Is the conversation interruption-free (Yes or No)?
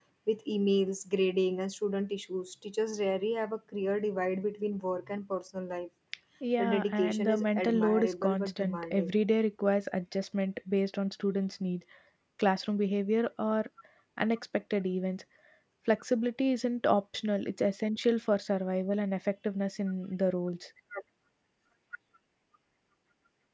No